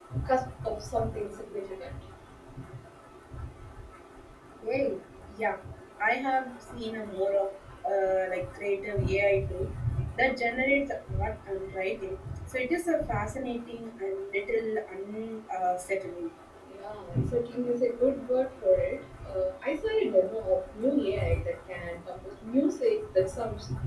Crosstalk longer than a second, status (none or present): none